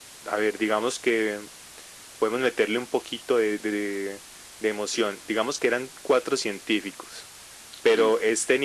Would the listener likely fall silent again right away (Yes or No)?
Yes